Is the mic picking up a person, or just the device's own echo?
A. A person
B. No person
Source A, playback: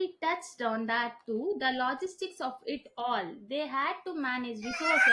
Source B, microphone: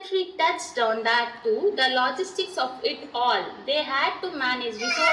B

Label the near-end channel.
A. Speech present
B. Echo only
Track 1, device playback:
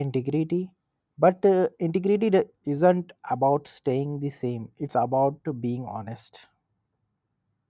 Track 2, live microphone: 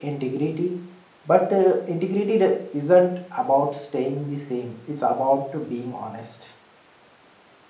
B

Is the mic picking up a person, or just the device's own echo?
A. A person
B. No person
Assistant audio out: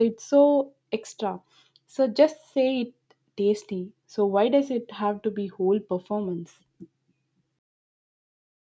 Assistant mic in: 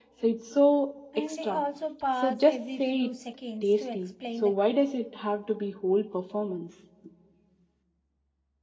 A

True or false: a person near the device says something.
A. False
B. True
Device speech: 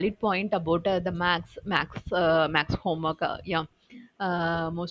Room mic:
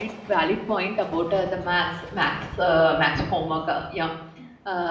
A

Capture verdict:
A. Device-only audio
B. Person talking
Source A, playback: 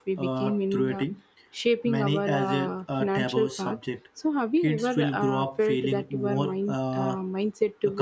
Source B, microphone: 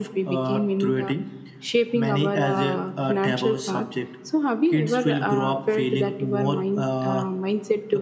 A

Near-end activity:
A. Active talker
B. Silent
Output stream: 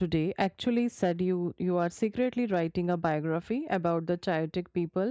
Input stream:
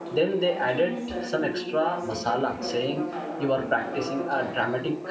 A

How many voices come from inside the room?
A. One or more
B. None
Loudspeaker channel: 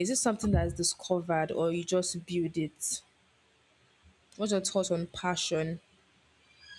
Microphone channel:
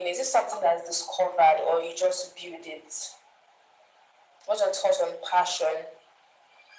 B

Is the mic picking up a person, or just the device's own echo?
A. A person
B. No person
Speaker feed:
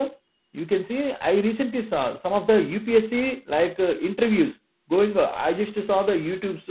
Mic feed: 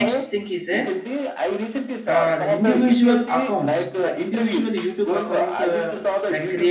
A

